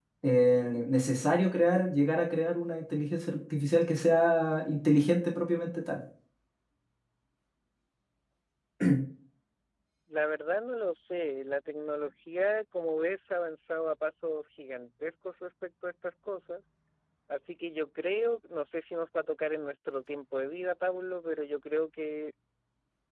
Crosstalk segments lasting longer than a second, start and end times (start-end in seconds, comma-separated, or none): none